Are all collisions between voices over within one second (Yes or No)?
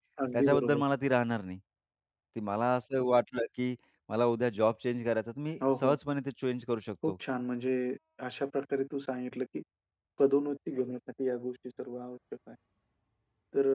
Yes